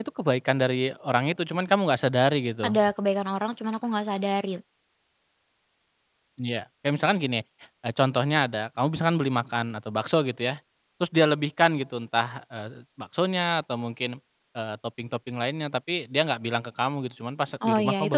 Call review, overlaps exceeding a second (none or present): none